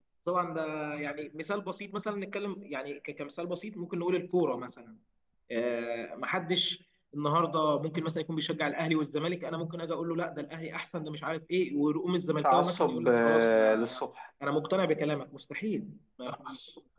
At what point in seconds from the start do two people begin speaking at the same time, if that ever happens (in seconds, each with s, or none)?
12.4 s